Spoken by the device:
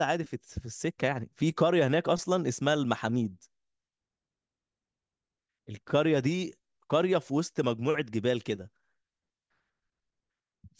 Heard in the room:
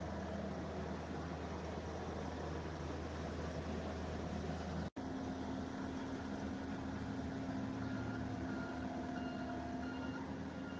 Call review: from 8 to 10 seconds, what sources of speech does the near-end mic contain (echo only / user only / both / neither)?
neither